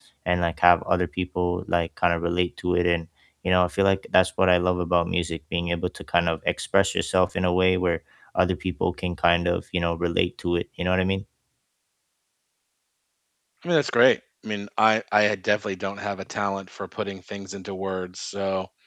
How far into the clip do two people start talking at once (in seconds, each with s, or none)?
none